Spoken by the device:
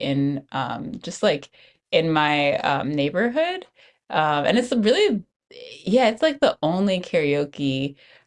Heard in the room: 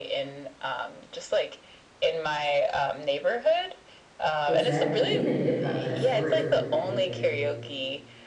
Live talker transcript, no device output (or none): Exactly. Even hip hop has storytelling back in the day.